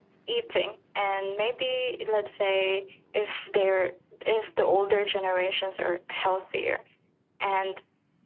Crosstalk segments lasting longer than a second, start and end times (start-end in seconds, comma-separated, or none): none